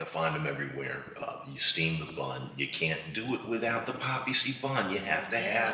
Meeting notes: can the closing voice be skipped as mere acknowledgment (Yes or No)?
No